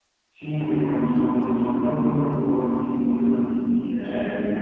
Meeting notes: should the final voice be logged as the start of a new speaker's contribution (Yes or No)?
No